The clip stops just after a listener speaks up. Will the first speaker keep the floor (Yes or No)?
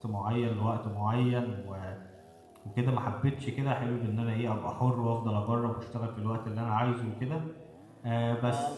Yes